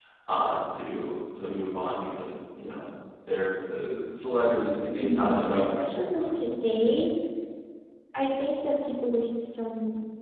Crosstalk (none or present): present